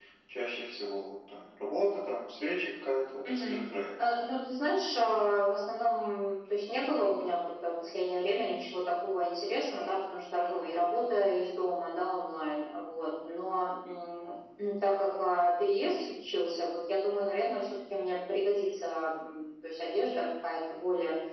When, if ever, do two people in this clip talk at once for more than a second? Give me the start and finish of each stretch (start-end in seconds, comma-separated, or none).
none